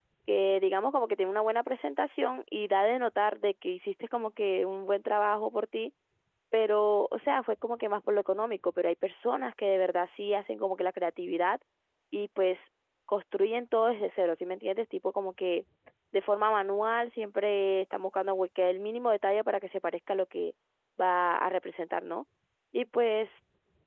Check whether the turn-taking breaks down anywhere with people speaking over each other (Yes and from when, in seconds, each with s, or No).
No